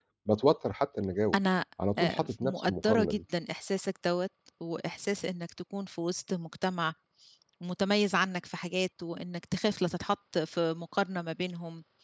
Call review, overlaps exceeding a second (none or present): present